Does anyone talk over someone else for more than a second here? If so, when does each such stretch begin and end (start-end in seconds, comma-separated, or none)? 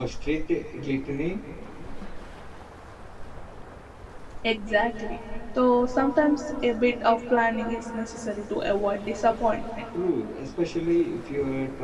none